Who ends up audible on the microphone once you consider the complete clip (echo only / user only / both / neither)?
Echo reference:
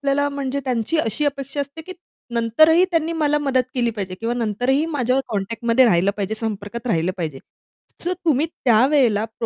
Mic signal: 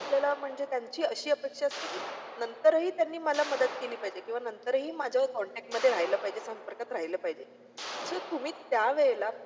echo only